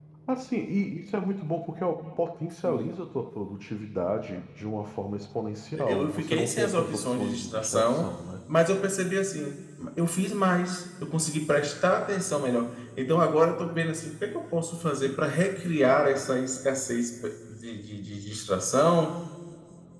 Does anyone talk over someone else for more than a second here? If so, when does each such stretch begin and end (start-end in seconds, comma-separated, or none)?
5.8-8.2